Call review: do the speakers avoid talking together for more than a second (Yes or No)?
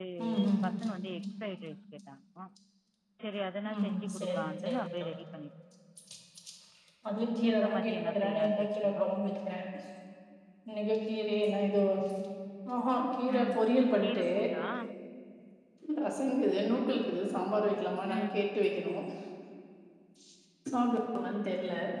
No